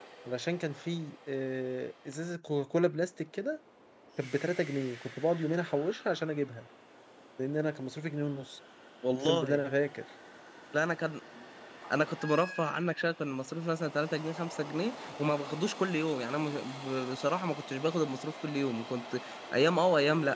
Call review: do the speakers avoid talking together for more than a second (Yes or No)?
Yes